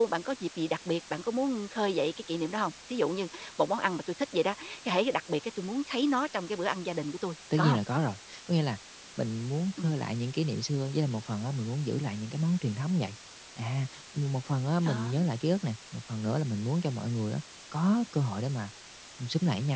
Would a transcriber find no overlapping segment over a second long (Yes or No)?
Yes